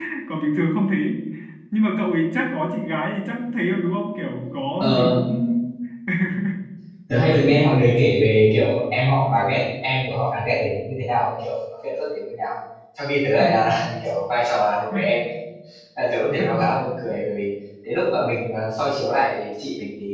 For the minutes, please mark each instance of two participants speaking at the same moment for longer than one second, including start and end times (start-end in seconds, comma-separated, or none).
none